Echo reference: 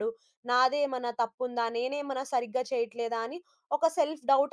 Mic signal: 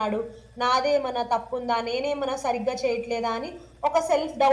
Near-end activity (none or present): none